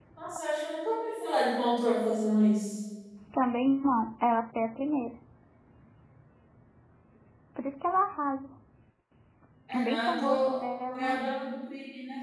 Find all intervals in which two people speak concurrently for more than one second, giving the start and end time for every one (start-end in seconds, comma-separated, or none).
9.7-11.2